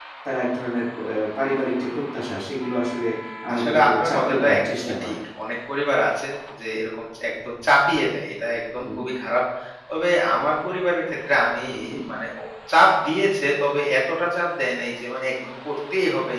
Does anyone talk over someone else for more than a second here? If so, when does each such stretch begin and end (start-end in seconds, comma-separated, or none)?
3.5-5.1